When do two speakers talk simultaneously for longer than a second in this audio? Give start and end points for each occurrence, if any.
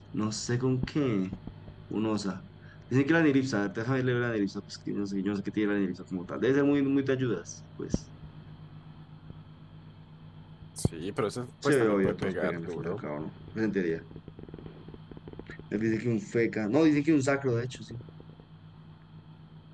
11.6-13.0

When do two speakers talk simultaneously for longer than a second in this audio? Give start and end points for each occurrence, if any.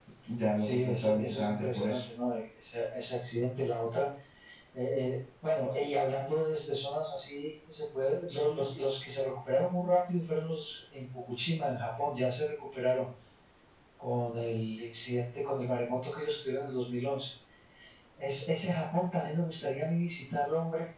0.6-2.0

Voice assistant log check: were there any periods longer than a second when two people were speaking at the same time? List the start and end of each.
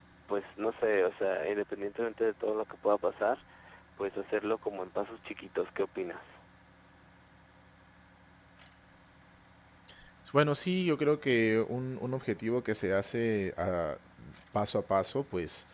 none

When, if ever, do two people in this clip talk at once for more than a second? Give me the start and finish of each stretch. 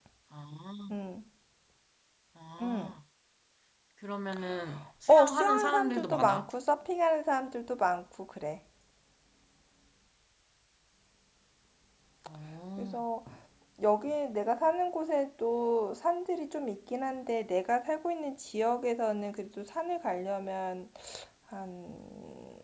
5.1-6.5

